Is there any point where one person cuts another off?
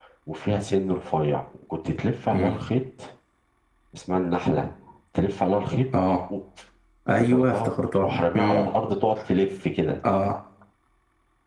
Yes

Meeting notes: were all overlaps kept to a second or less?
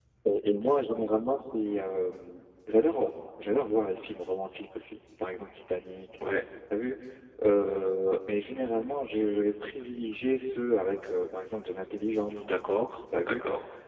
Yes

